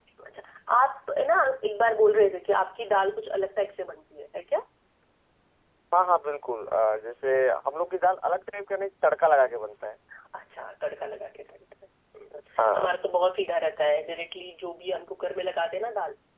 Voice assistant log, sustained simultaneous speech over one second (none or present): none